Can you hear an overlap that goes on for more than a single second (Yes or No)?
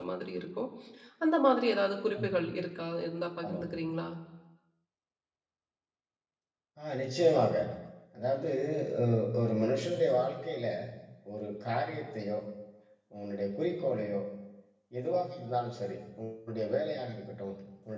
No